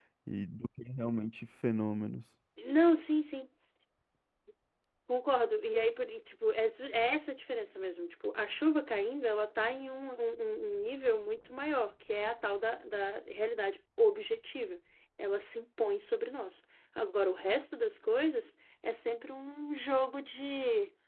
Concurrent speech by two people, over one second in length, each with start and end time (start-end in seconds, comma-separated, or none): none